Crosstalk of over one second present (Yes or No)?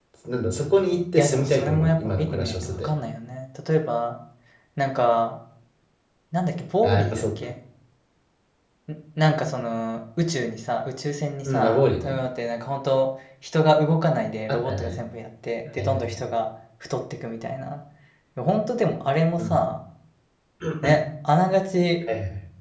Yes